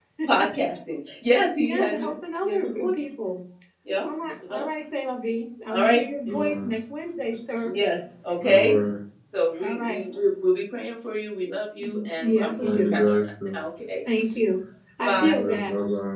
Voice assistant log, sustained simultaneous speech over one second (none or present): present